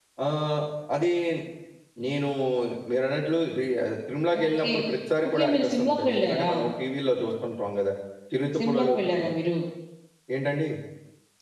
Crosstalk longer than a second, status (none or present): present